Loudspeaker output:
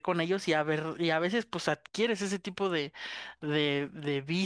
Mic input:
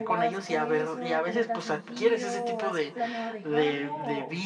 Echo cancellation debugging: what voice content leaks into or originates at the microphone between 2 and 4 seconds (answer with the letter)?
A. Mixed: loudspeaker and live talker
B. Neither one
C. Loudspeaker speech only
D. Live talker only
A